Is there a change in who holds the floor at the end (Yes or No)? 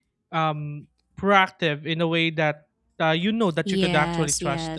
Yes